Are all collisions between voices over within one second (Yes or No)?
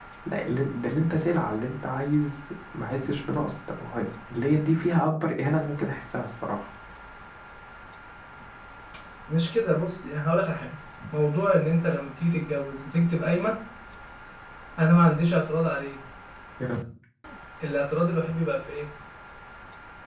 Yes